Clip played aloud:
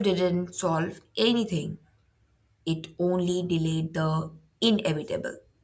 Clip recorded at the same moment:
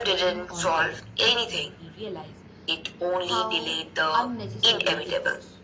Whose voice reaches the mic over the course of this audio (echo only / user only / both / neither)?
both